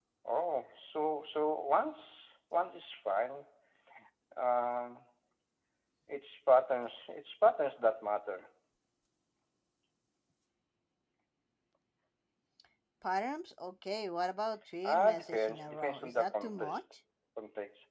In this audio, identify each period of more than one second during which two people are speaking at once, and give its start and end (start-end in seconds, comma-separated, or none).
14.8-16.8